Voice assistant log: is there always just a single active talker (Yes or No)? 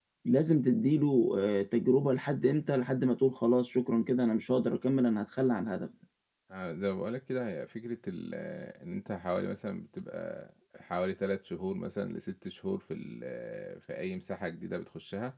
Yes